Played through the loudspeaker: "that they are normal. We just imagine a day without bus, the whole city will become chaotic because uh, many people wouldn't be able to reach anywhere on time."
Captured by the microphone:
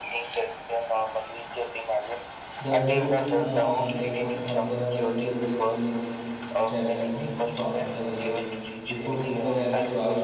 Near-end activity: present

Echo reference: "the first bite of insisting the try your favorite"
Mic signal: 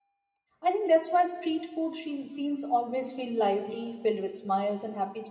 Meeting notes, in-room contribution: present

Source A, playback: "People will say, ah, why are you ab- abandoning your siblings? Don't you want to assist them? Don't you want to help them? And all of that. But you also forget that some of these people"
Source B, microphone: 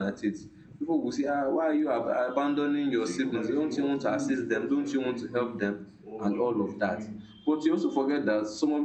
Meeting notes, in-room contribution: present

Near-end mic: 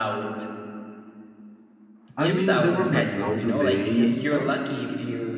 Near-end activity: present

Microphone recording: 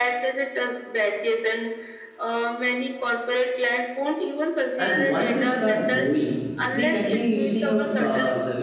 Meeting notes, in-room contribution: present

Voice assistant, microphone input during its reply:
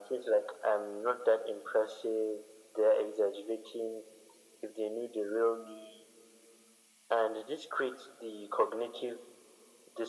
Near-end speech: none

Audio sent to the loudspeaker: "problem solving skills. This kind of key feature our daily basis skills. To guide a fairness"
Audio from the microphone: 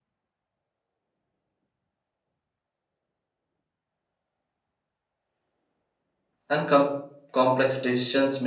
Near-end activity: present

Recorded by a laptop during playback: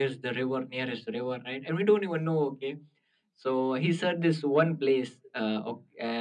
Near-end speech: none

